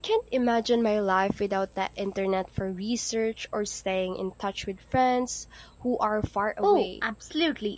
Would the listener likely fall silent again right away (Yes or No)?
No